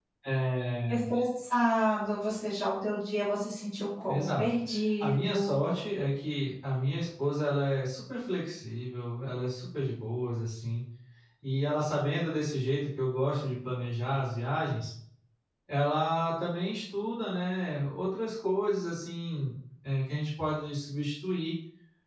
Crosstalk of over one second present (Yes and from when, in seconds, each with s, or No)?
No